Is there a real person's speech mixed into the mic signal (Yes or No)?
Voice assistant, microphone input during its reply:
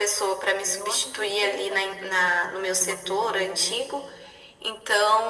Yes